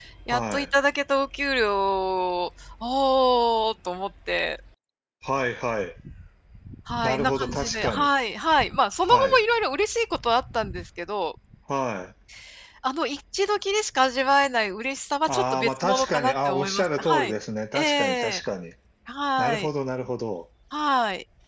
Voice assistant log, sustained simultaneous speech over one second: present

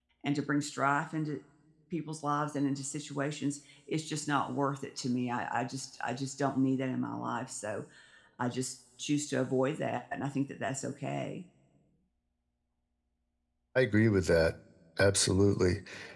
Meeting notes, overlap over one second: none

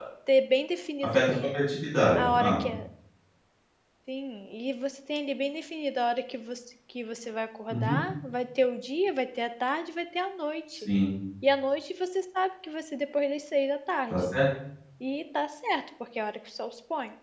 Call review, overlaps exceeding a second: none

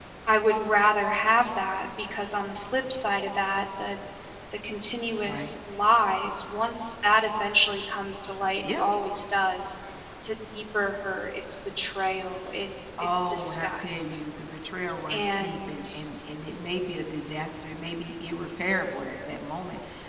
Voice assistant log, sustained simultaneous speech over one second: present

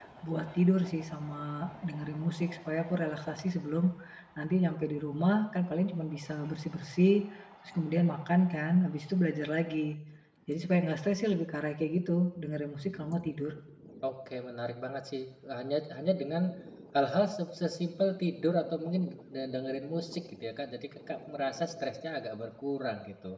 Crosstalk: none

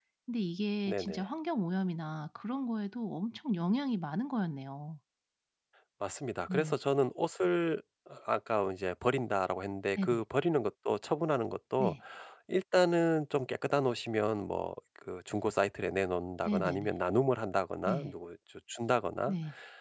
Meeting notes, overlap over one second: none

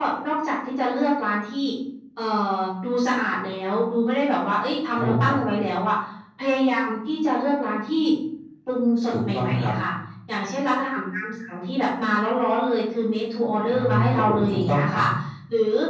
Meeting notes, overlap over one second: present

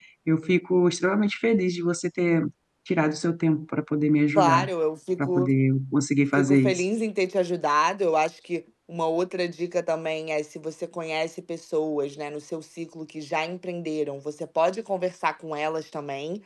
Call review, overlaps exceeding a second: none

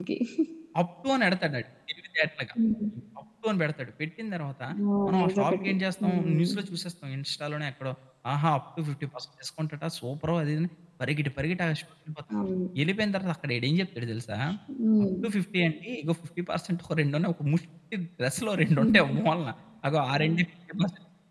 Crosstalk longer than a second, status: present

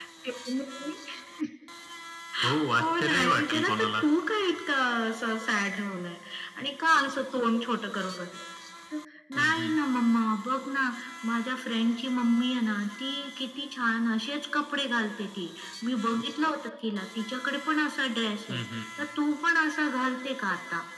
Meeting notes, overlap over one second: present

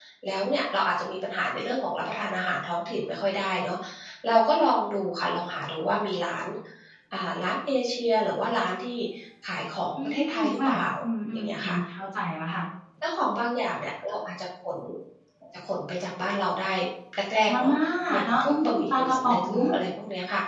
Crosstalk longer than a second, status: present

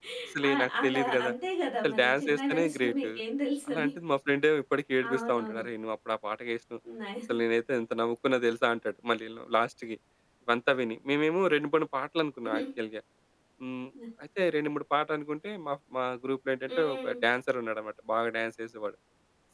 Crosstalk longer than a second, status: present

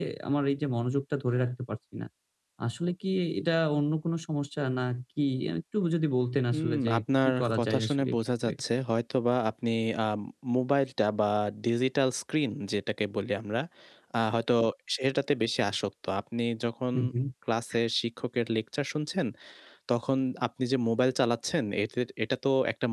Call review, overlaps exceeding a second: present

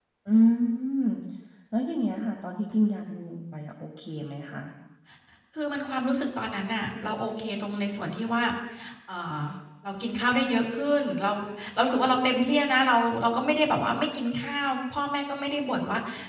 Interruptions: none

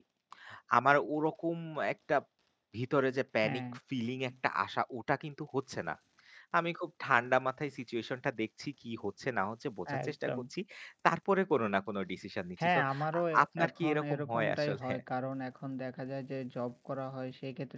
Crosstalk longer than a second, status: present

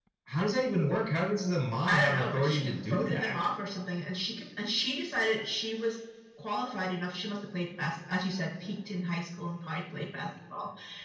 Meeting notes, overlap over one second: present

